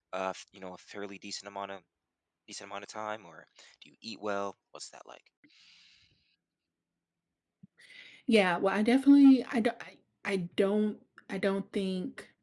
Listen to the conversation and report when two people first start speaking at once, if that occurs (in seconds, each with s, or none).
none